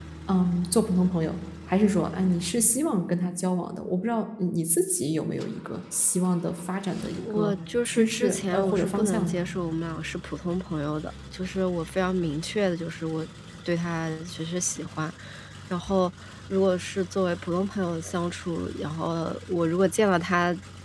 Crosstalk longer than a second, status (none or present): present